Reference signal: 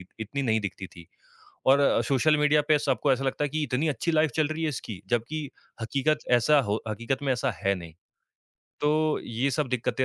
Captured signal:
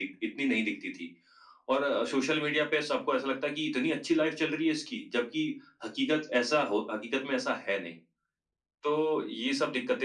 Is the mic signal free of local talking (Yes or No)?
Yes